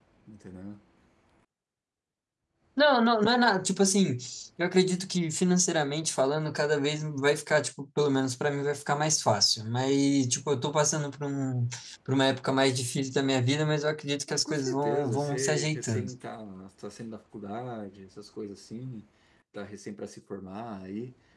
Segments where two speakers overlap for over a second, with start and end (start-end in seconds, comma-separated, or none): 14.3-16.0